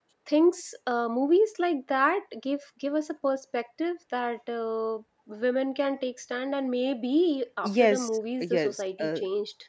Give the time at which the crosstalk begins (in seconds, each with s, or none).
7.6 s